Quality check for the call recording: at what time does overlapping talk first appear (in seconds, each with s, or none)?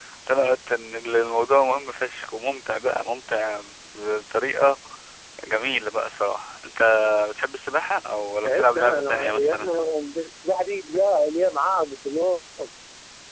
8.4 s